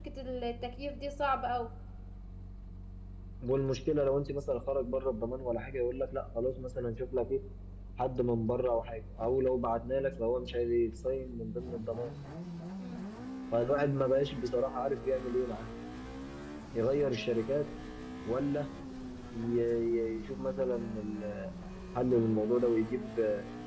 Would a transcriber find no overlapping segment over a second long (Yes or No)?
Yes